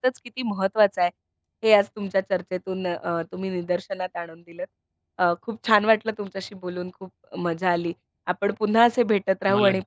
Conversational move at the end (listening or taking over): listening